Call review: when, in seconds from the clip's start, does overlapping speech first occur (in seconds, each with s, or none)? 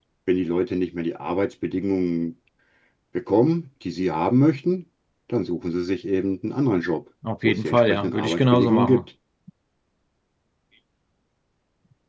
7.2 s